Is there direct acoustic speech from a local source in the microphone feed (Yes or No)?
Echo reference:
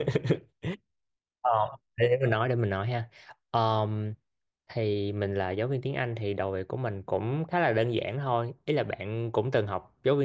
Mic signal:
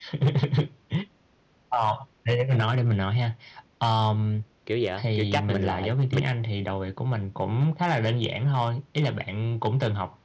Yes